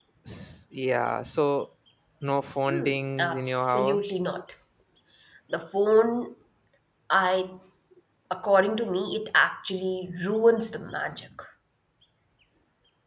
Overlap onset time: 2.7 s

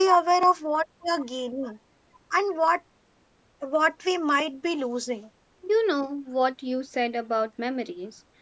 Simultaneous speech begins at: none

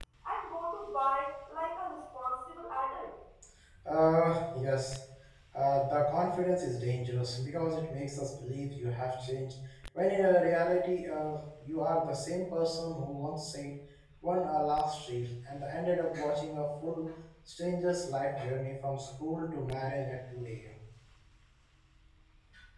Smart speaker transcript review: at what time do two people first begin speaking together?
none

